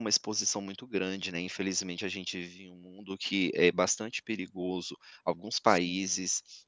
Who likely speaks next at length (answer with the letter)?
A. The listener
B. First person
B